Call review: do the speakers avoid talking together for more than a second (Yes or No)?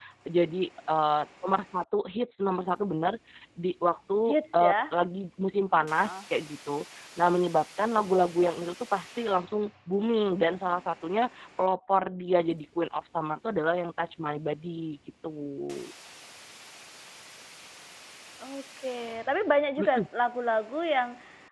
Yes